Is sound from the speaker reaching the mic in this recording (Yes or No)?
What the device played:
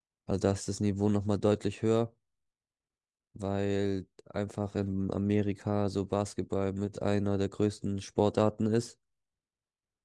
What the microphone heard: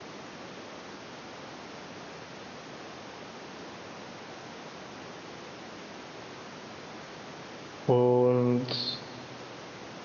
No